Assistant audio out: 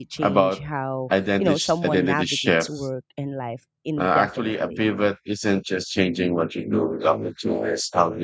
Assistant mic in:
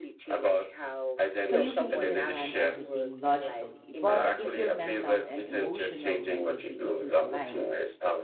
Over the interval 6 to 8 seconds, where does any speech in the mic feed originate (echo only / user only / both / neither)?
both